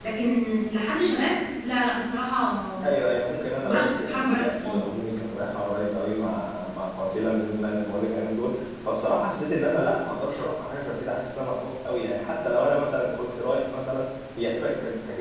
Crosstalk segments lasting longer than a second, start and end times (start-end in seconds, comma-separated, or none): 3.6-4.9